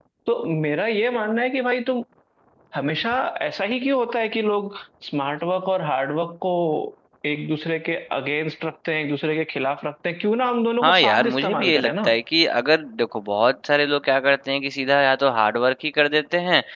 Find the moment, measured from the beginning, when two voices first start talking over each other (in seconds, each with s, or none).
10.8 s